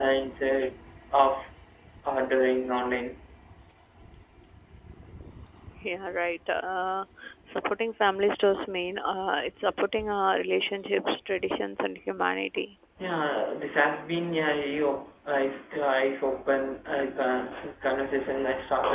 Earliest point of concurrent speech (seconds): none

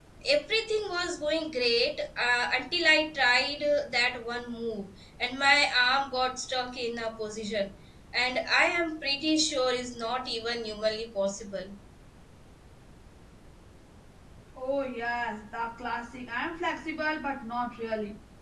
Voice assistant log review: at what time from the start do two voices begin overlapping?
none

